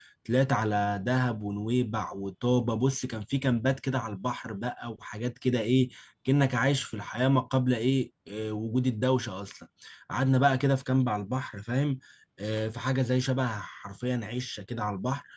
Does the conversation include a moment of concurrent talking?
No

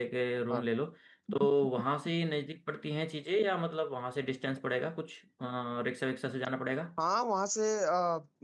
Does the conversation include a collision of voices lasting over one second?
No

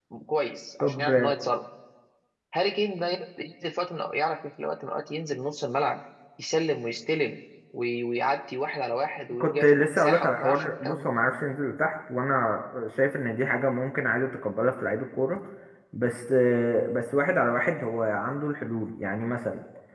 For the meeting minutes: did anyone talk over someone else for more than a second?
Yes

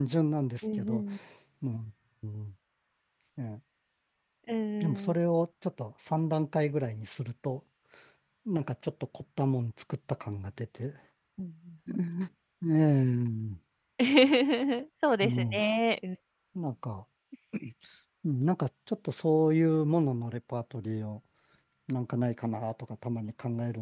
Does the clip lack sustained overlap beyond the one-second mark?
Yes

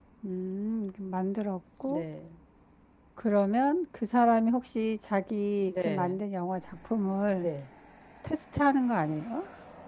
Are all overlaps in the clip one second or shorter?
Yes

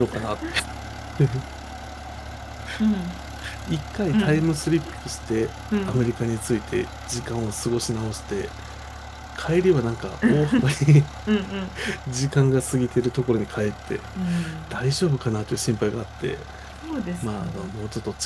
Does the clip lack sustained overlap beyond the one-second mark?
Yes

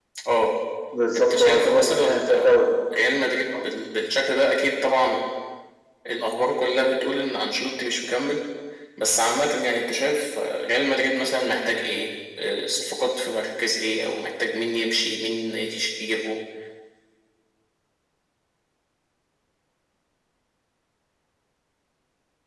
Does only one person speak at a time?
No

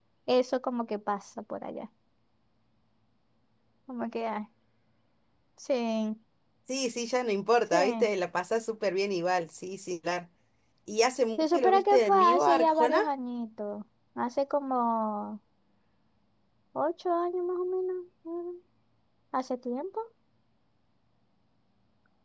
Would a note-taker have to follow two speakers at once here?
Yes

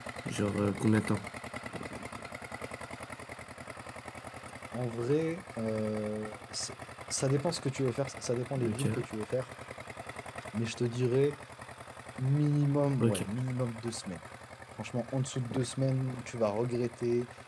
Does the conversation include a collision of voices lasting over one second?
No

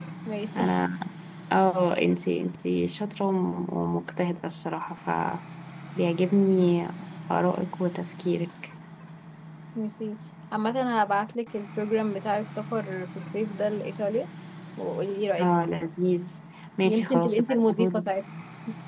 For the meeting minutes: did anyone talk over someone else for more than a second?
Yes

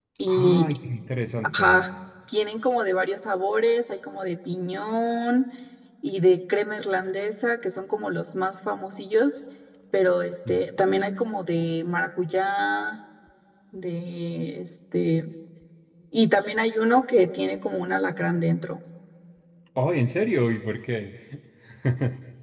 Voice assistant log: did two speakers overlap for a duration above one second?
No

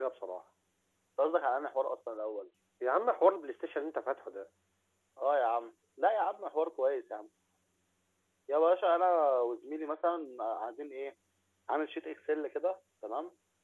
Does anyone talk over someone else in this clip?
No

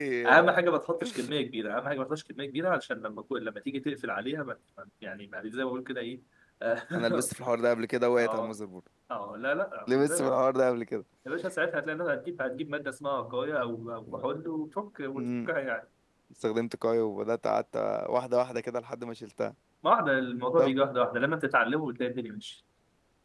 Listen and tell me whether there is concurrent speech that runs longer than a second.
No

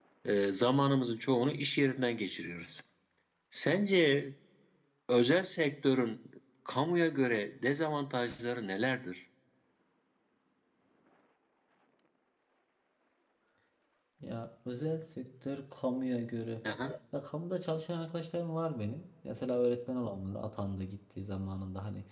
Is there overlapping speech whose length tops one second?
No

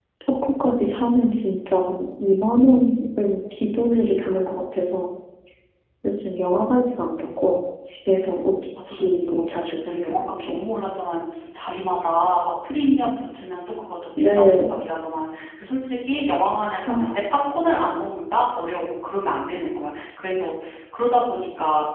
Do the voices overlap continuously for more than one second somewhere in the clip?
Yes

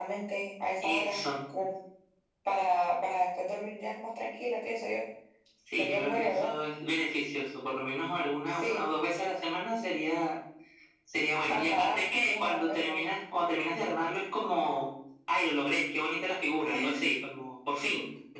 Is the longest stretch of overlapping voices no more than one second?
No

